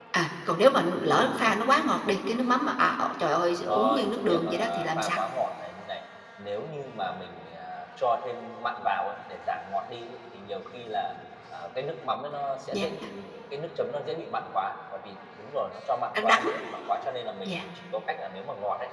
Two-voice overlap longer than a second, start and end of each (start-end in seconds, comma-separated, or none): 3.6-5.2